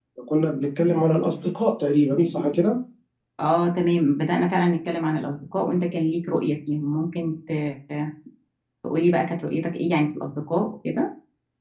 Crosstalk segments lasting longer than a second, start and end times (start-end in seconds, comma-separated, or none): none